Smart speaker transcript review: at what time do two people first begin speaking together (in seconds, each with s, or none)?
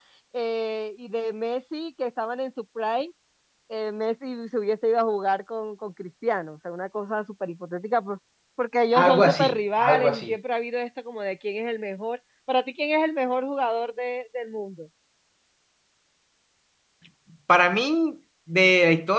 8.9 s